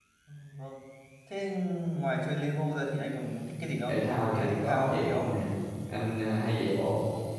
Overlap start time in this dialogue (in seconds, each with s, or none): 3.9 s